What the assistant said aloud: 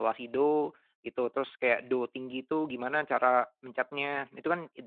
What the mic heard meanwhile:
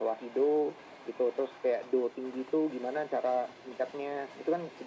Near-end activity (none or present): none